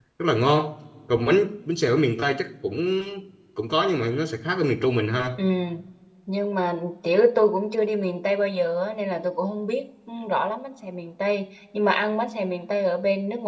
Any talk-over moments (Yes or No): No